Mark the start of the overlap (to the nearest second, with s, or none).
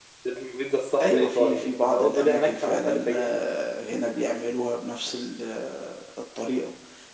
1 s